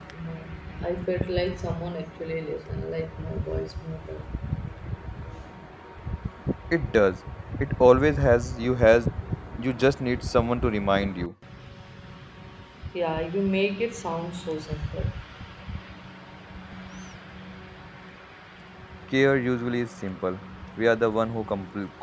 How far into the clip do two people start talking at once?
none

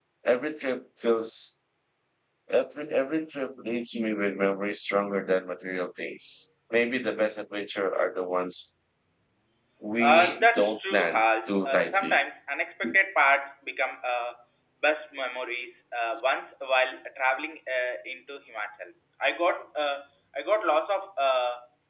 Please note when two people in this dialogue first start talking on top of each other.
10.0 s

